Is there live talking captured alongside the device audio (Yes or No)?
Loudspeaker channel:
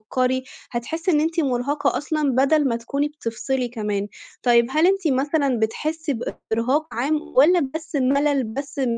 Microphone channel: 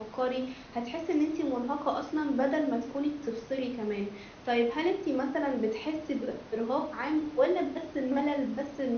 No